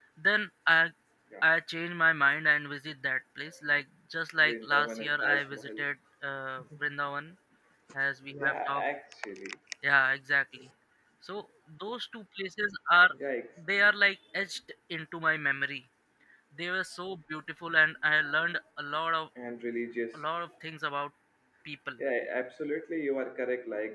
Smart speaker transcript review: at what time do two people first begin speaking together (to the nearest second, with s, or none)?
4 s